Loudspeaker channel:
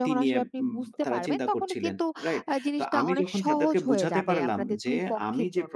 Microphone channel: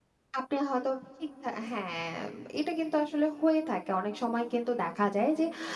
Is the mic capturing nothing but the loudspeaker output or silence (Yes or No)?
No